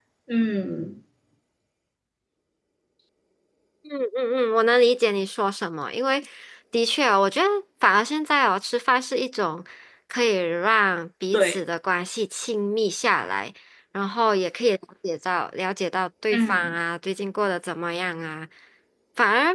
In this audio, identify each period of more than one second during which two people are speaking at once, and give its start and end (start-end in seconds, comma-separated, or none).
none